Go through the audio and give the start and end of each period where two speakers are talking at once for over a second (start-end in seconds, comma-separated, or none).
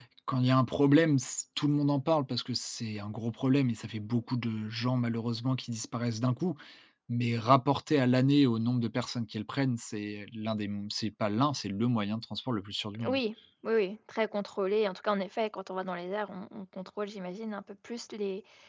none